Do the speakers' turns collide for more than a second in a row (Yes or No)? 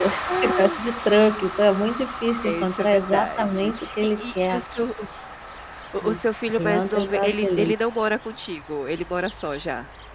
Yes